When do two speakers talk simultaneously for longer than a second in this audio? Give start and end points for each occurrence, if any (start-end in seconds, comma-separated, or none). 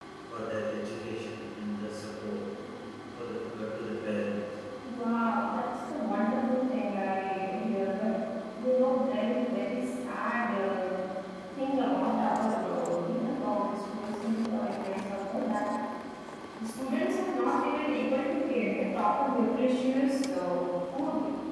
none